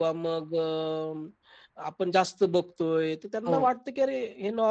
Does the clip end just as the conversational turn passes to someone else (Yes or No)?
No